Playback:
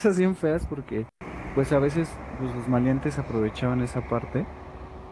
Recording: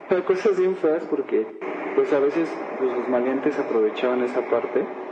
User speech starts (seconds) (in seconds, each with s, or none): none